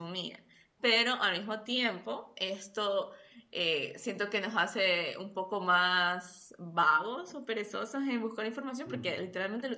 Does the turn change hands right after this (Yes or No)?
No